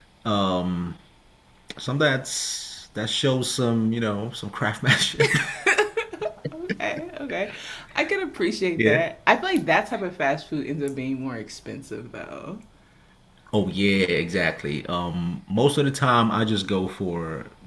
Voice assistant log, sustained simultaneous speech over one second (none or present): none